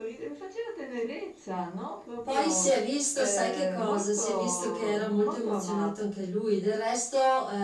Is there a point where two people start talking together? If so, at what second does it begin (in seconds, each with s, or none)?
2.2 s